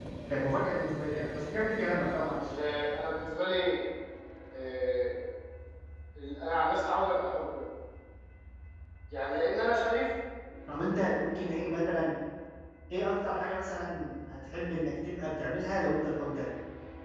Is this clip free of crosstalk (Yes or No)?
Yes